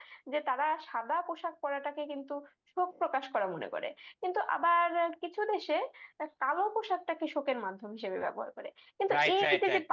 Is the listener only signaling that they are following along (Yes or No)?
No